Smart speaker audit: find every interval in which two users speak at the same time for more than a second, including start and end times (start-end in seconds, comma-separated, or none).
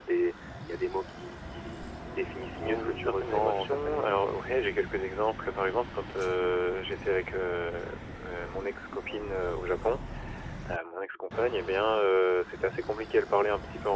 2.5-4.2